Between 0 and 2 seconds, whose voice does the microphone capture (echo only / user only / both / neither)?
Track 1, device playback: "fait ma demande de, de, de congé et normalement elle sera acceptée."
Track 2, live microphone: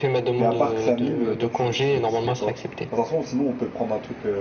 both